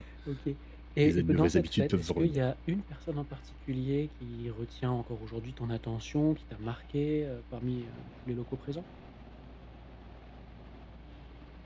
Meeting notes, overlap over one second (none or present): present